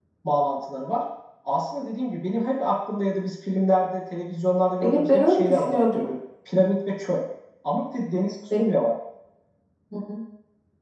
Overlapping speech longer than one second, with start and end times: 4.8-6.1

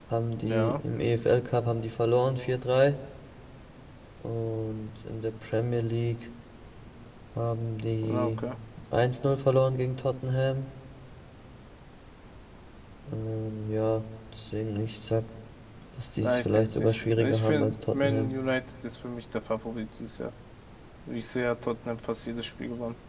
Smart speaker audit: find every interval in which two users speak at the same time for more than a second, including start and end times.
16.2-18.3

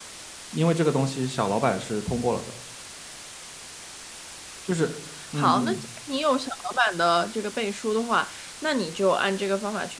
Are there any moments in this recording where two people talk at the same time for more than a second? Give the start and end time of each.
none

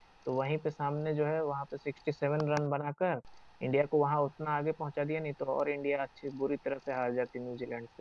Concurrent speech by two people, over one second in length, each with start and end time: none

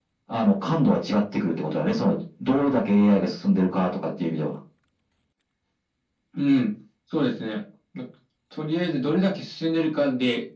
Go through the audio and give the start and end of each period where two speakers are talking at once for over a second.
none

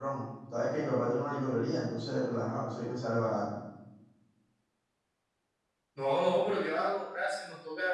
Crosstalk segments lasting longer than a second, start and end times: none

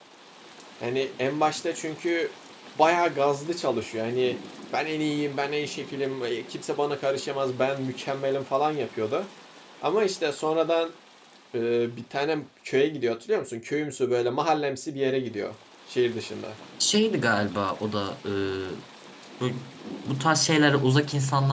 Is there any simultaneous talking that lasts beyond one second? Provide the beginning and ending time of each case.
none

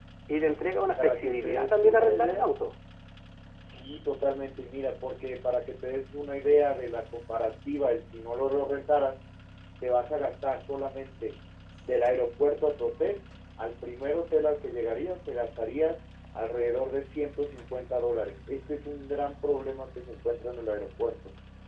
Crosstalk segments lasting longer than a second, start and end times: 0.8-2.5

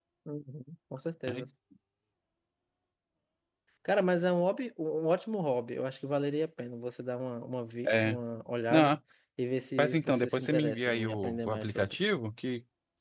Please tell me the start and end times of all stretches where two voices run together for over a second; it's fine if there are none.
9.8-12.0

